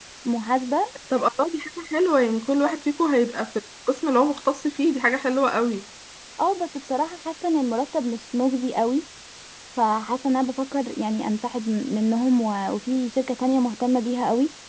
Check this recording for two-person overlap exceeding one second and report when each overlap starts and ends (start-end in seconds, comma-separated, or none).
none